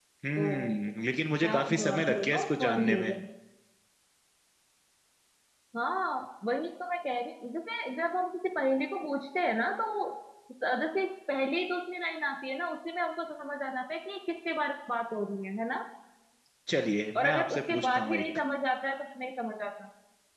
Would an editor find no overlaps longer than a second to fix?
No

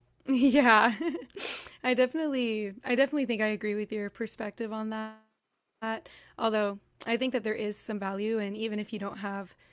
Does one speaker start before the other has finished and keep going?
No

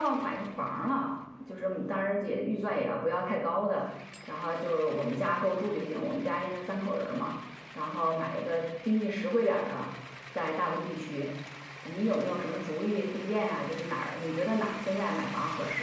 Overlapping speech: No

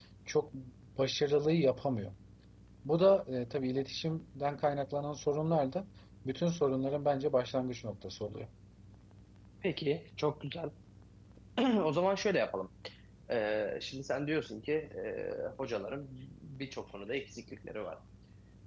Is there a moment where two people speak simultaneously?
No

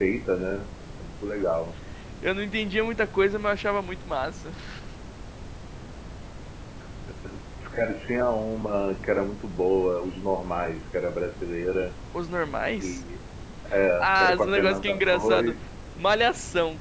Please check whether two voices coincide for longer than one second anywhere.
Yes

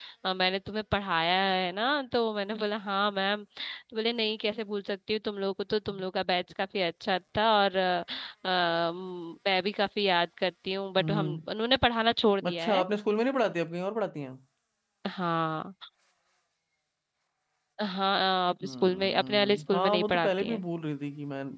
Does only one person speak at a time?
No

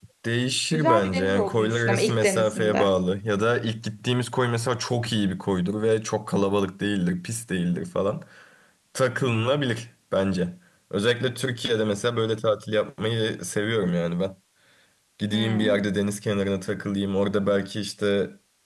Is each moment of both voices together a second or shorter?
No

